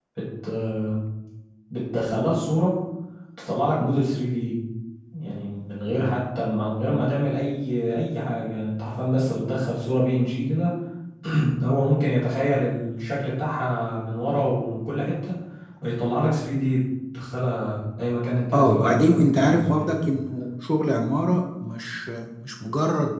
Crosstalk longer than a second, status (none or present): present